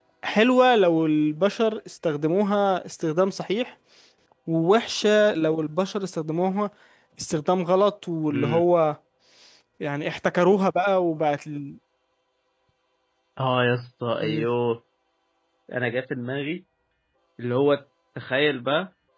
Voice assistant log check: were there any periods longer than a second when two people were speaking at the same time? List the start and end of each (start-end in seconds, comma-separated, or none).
none